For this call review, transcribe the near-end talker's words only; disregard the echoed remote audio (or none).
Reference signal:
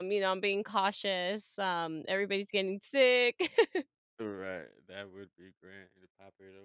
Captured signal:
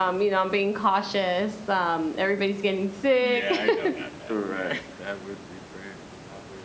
Yeah, I know, not that, yeah.